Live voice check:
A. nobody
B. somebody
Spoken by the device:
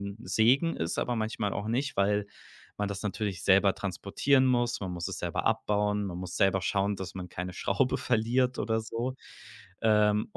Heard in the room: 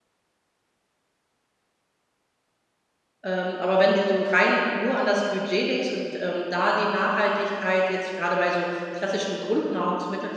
B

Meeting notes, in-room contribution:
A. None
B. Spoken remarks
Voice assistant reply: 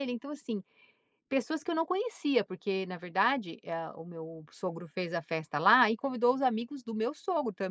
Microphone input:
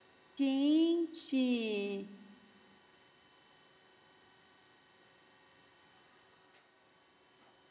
B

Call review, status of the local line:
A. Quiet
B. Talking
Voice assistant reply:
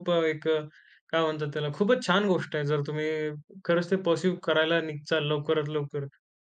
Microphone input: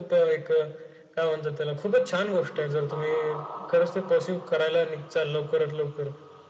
A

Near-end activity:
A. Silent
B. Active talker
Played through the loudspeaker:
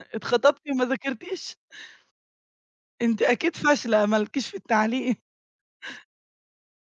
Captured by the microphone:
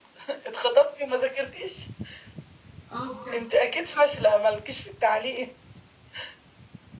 B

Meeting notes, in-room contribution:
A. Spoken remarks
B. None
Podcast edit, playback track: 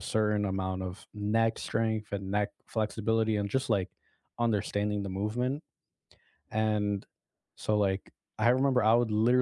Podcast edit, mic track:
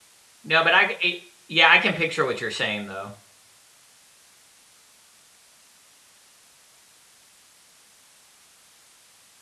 A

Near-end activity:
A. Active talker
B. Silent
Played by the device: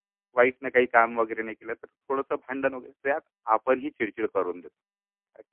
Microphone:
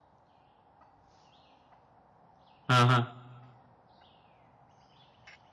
A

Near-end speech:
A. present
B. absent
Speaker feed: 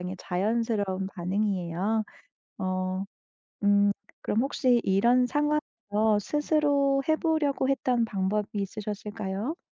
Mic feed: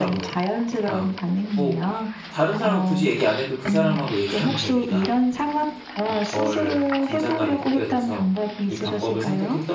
A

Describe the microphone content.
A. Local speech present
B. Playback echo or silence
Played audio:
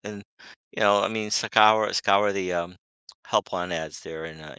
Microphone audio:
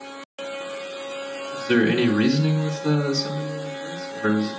A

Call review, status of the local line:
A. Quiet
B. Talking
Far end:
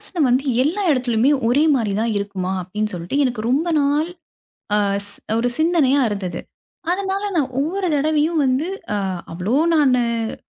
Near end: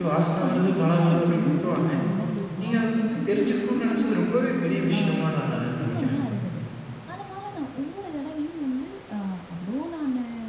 B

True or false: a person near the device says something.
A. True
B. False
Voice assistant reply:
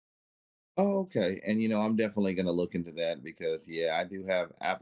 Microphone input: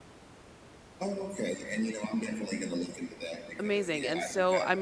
A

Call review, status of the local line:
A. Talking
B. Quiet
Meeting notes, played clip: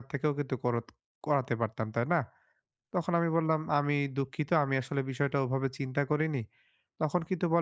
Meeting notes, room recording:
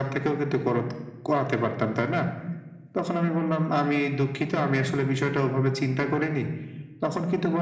B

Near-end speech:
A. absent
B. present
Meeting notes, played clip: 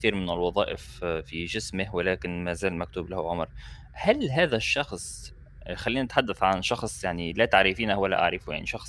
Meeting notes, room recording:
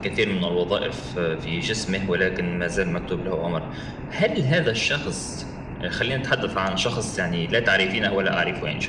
A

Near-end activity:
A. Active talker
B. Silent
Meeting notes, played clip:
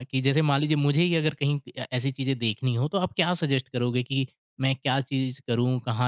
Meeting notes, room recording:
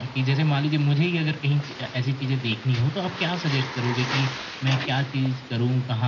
B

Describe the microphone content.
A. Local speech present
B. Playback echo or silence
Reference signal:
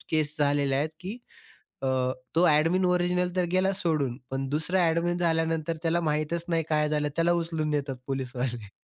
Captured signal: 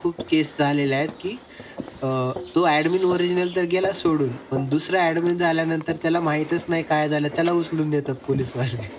B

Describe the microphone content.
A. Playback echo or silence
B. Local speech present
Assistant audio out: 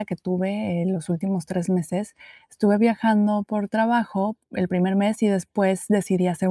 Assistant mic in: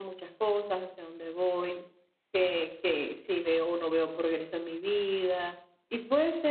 B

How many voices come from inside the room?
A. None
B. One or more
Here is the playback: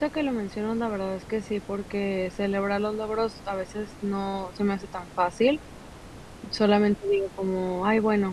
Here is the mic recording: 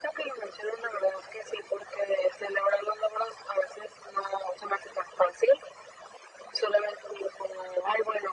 A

